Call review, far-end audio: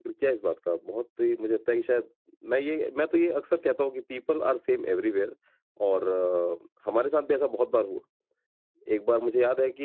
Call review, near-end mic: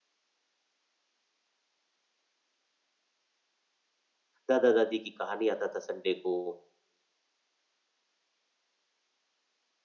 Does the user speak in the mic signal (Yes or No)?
Yes